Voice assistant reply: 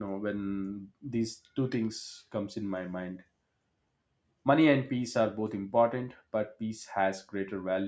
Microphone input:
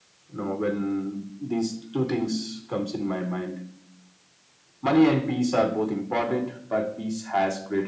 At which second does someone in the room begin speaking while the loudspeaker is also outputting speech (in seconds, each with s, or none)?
none